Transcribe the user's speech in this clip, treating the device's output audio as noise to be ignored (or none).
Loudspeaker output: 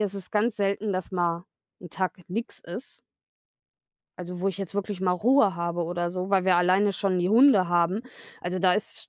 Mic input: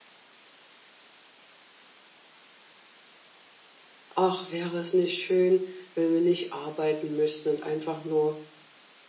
„Ach, wäre es nicht schön, wenn wir nicht arbeiten müssten und einfach nur,